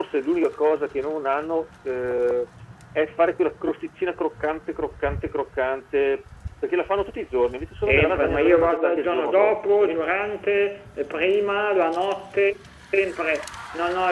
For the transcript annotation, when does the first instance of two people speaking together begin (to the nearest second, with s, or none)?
8 s